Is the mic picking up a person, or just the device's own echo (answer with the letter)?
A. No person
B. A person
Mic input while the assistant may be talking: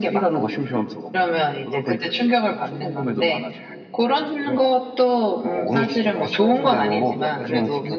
A